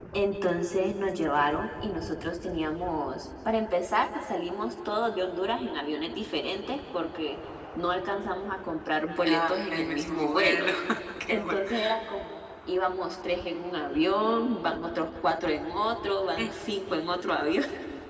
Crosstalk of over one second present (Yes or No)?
Yes